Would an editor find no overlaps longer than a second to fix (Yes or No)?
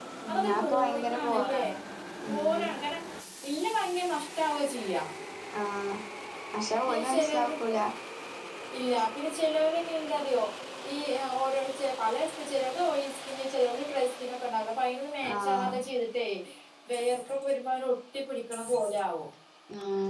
No